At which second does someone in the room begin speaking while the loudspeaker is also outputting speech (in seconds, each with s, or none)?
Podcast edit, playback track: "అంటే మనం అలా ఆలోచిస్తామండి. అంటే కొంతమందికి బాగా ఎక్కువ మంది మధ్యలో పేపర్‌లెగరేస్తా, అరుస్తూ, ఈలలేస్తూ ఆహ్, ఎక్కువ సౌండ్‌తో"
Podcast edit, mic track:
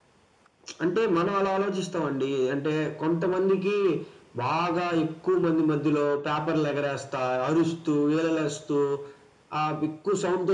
none